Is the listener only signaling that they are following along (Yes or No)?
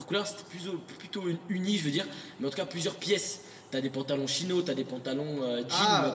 Yes